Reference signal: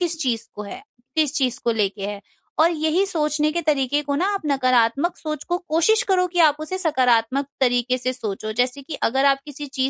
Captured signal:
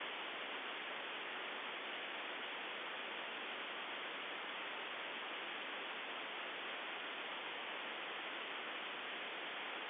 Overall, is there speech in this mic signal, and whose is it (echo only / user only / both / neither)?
neither